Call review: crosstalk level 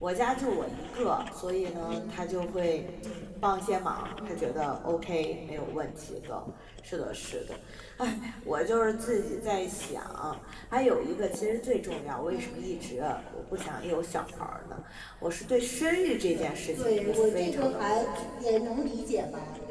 present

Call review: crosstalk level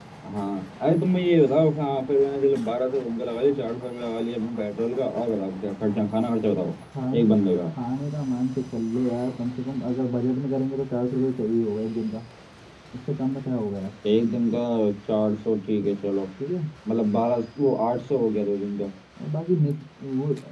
none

